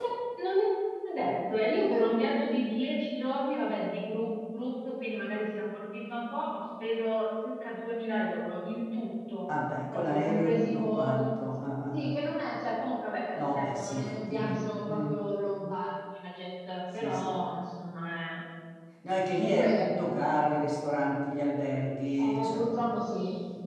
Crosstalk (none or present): present